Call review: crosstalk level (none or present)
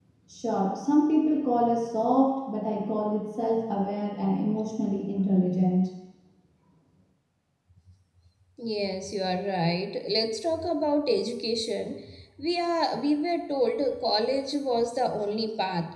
none